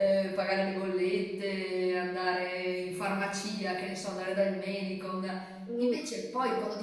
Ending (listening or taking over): listening